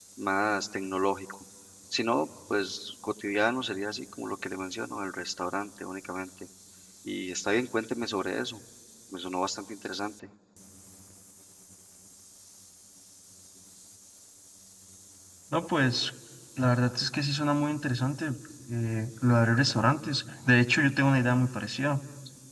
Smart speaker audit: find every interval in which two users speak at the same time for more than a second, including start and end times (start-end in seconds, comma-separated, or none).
none